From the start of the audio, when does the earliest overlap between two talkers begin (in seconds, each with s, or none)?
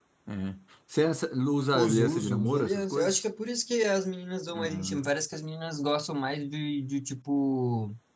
1.7 s